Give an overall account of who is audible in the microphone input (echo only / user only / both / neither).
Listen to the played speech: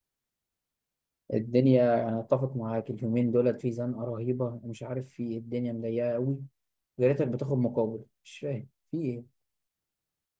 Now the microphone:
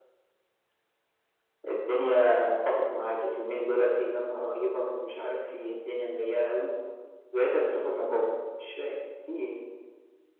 echo only